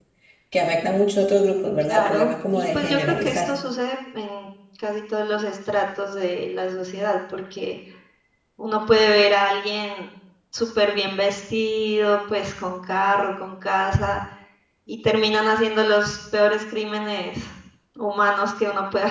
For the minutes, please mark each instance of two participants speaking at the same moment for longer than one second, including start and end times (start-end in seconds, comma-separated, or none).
1.8-3.5